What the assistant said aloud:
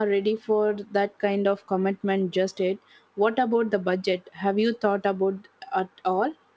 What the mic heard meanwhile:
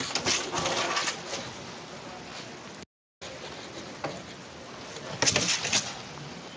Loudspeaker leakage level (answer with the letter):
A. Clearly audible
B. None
B